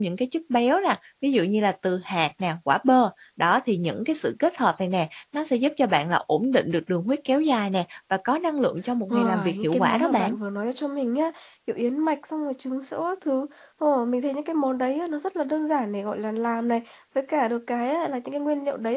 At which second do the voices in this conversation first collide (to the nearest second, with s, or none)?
9 s